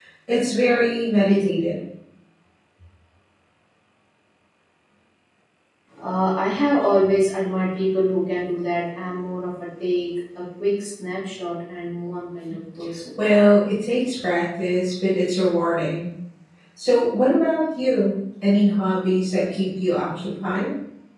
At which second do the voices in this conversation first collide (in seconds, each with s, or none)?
none